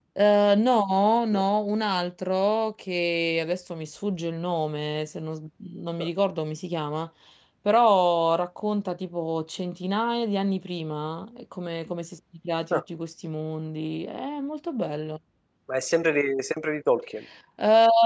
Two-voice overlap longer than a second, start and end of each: none

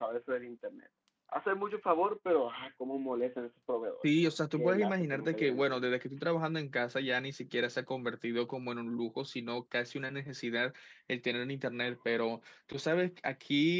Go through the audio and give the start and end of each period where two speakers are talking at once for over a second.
4.0-5.8

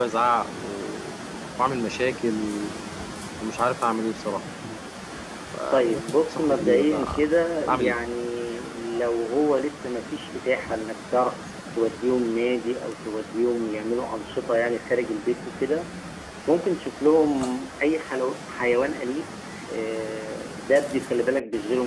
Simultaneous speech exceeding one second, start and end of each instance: 5.7-7.2

